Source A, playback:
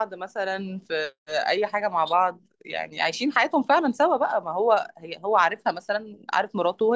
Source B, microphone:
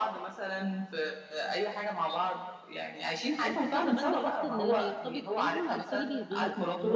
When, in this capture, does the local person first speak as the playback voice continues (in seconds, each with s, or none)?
3.4 s